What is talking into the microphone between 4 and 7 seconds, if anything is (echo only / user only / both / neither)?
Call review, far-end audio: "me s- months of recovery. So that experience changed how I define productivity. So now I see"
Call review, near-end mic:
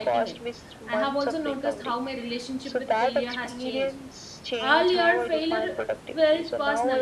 both